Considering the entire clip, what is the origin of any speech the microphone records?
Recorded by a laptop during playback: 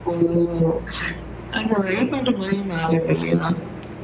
echo only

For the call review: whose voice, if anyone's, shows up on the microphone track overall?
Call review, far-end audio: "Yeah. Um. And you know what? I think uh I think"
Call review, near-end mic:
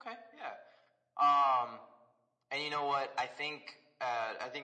echo only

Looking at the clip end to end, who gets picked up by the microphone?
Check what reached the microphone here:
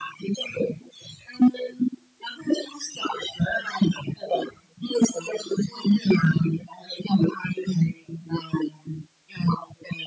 echo only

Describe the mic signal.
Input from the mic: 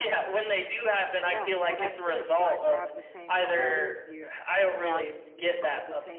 both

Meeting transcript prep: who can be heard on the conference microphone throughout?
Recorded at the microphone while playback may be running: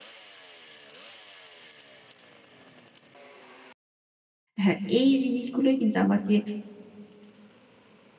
user only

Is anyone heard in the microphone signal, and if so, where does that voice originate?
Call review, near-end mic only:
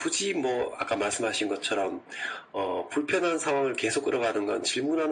echo only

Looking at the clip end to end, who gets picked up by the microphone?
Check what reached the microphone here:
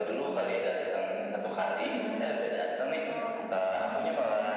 both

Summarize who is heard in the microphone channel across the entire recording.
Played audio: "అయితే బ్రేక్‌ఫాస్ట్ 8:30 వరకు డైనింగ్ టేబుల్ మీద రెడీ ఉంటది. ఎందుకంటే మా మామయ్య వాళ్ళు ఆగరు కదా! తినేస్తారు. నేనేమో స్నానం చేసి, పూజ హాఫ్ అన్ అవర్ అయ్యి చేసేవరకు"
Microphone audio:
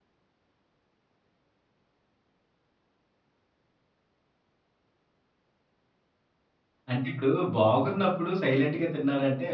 user only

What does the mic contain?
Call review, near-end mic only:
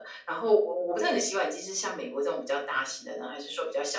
echo only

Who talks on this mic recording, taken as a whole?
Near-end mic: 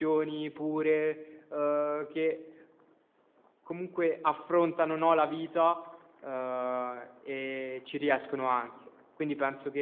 user only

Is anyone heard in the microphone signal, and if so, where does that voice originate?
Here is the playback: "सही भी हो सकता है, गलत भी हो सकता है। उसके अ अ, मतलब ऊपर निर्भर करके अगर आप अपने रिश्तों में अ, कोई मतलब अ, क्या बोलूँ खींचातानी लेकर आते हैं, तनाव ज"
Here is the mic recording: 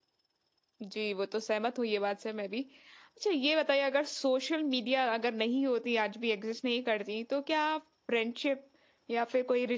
user only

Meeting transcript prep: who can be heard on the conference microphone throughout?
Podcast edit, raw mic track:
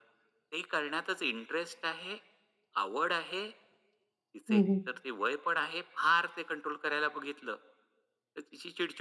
both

